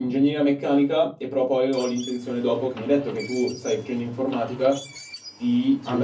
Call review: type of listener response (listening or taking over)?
listening